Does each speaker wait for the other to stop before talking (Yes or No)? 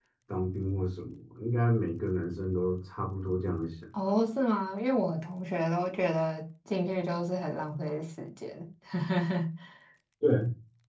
Yes